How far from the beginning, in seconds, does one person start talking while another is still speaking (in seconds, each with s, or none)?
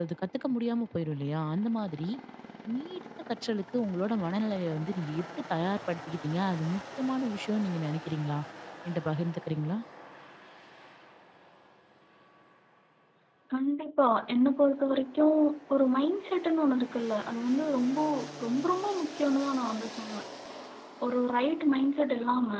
none